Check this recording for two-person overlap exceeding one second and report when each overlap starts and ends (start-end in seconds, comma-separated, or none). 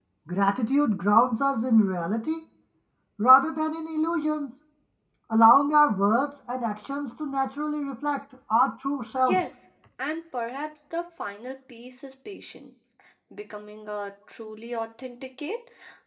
none